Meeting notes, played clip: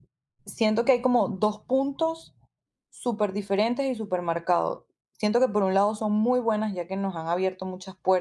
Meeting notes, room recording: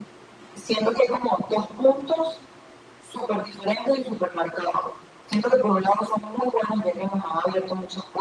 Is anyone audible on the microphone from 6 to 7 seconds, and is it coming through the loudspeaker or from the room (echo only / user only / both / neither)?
echo only